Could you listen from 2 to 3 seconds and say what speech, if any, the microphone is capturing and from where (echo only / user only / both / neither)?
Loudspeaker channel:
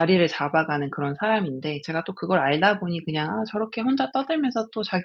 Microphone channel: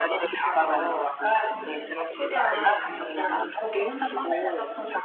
both